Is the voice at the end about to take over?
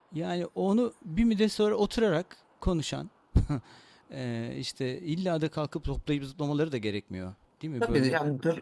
Yes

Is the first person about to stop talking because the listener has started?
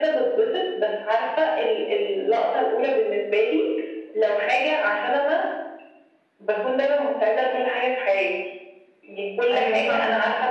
No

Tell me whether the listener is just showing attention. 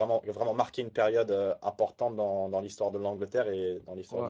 No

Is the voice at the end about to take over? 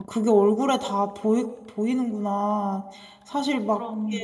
No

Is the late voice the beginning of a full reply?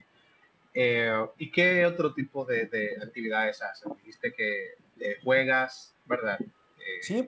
Yes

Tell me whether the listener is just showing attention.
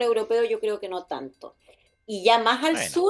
Yes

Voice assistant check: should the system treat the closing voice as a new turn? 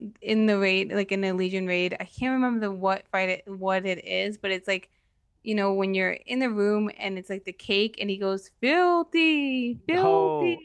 Yes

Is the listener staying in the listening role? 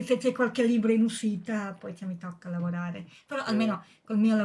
Yes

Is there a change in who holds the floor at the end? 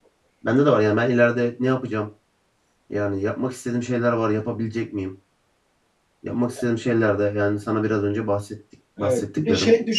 Yes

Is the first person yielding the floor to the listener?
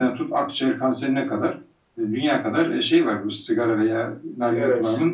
No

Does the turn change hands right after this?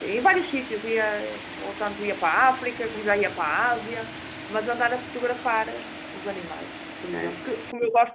No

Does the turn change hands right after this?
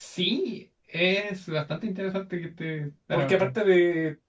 Yes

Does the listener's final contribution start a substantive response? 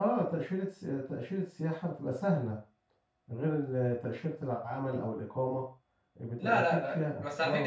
Yes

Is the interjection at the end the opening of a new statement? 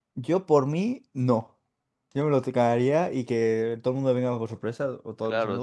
Yes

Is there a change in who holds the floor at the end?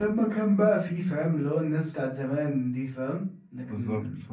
Yes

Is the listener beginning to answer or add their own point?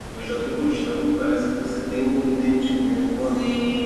Yes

